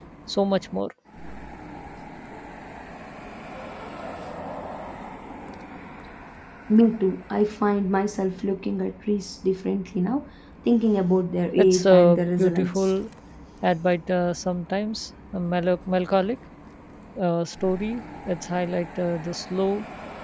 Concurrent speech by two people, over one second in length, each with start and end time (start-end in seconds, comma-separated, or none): 11.6-12.9